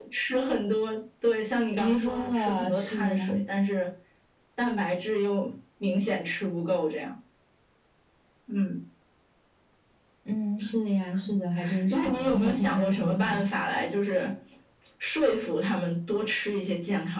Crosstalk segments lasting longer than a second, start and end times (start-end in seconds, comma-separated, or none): 1.8-3.3, 11.9-13.5